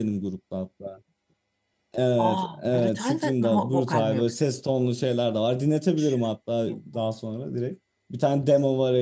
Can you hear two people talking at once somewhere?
Yes, from 2.2 s

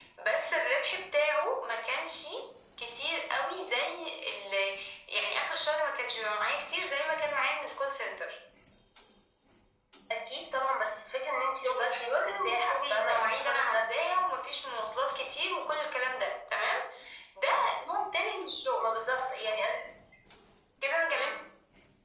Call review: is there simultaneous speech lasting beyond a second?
Yes, from 11.6 s

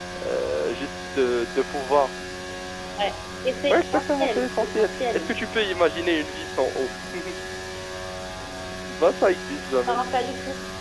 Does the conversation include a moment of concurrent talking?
Yes, from 3.7 s

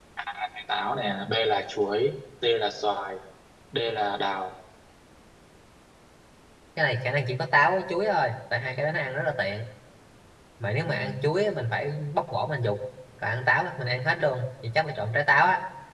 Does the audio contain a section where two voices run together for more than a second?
No

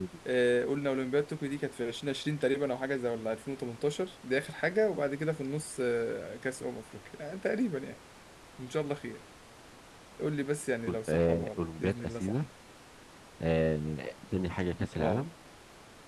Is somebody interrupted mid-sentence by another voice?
Yes, from 10.9 s

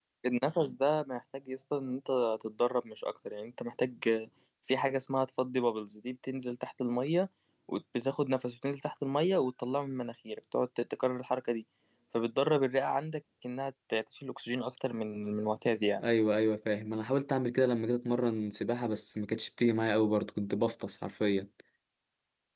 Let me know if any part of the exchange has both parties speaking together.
No

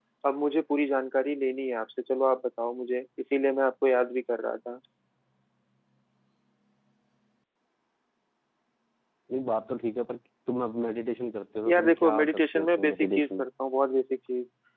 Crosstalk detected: Yes, from 11.7 s

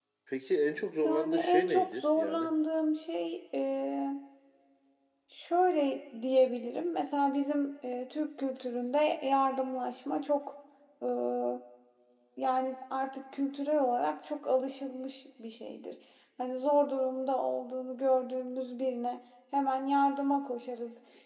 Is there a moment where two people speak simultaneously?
Yes, from 1.0 s

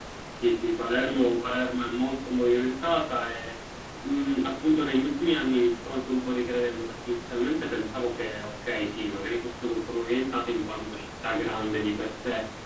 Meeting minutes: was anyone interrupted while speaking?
No

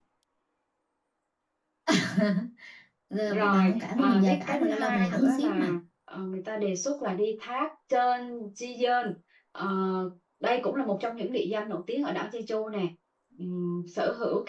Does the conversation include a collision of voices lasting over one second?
Yes, from 3.3 s

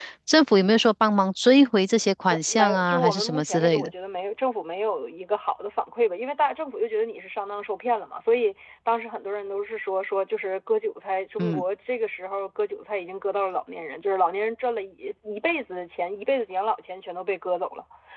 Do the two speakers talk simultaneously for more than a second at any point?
Yes, from 2.3 s

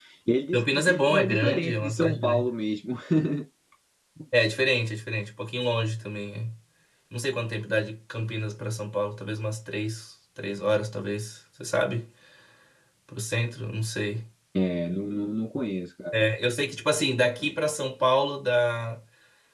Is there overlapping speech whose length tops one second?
Yes, from 0.5 s

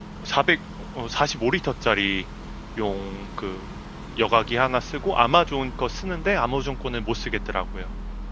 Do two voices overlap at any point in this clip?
No

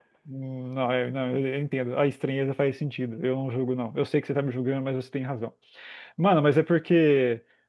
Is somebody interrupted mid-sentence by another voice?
No

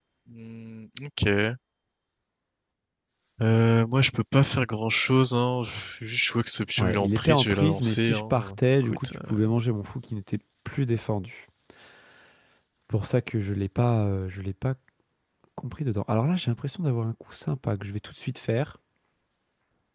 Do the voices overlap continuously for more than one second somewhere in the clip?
Yes, from 6.8 s

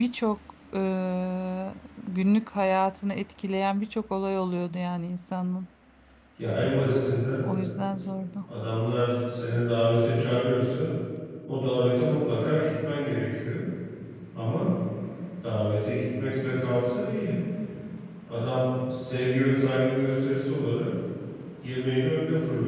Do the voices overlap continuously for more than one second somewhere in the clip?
No

